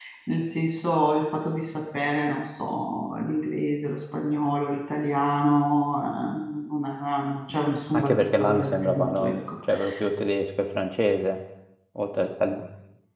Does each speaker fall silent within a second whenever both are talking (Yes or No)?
No